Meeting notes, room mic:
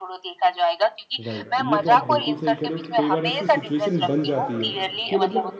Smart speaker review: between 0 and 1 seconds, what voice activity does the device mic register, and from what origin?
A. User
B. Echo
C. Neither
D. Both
B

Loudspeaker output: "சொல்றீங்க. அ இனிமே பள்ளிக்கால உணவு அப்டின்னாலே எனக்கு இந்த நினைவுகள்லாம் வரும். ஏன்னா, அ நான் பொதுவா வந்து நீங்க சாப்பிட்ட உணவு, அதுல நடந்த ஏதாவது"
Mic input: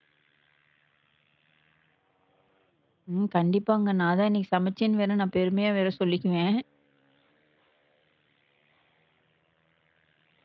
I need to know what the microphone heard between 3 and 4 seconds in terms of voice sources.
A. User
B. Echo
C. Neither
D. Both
A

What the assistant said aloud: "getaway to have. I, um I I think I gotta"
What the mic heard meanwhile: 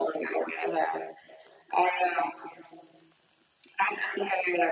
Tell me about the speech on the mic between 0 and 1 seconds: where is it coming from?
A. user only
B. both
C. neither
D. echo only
D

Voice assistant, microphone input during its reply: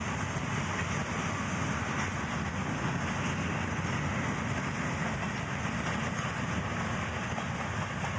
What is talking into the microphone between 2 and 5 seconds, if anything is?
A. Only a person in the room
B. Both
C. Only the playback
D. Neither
D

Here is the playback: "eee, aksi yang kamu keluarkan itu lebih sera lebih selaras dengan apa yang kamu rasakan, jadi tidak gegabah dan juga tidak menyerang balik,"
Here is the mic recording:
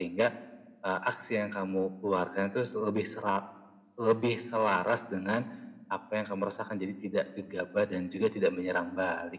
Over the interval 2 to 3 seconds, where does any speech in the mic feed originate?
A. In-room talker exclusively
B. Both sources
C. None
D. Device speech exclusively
D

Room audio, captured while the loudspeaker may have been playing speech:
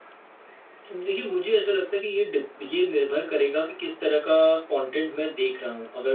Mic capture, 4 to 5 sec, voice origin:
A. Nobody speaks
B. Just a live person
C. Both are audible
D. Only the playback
B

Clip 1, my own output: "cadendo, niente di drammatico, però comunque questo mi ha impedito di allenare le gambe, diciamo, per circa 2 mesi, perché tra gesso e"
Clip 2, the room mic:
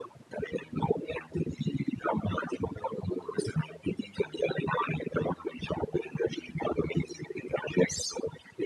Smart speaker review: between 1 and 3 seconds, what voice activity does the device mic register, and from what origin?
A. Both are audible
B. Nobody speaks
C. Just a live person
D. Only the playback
D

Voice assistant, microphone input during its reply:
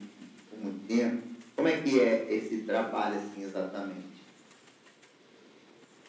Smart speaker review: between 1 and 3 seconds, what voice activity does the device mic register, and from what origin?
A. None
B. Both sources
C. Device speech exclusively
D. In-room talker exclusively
C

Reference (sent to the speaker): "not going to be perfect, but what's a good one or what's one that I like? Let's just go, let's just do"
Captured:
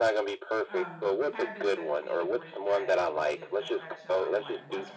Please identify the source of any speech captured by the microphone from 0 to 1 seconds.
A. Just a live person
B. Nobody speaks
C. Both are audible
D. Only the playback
C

